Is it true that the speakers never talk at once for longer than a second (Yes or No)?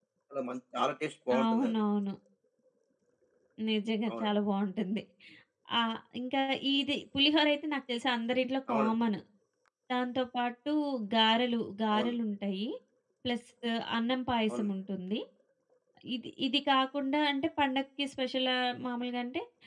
Yes